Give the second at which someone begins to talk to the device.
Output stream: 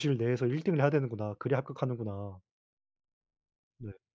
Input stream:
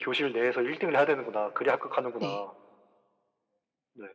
2.2 s

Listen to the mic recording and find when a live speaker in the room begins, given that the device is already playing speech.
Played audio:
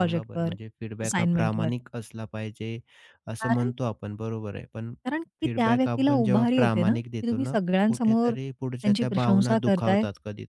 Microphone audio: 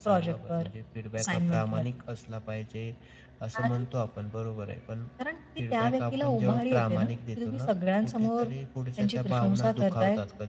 none

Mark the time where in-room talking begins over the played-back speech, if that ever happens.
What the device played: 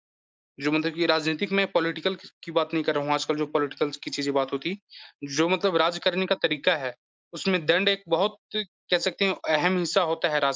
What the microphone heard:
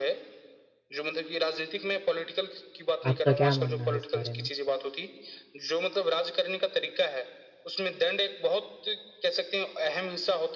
3.0 s

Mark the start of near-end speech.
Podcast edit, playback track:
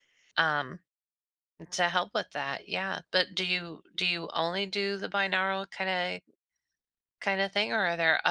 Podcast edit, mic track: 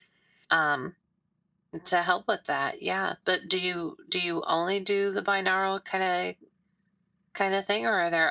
none

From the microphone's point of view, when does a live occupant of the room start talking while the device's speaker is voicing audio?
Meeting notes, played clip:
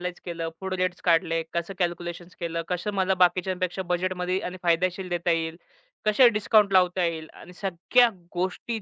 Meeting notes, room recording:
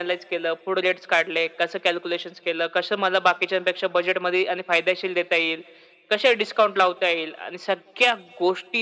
none

